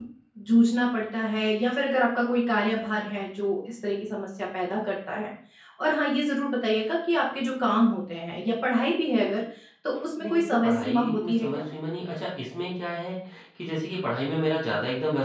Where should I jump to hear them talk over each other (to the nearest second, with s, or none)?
10 s